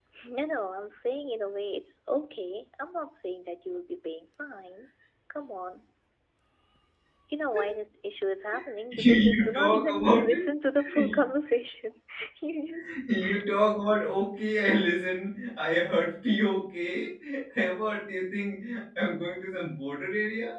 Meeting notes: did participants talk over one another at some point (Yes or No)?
Yes